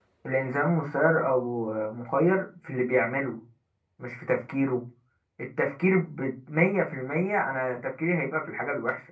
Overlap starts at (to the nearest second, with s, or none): none